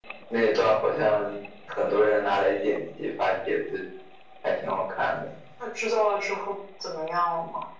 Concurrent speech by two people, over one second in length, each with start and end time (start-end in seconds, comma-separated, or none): none